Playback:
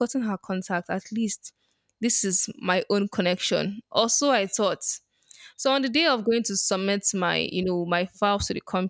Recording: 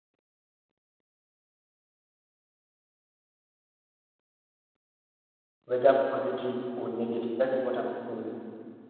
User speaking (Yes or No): Yes